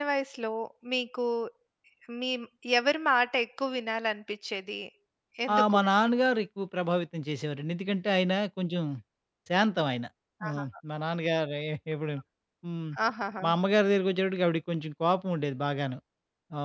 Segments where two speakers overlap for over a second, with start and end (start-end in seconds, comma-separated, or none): none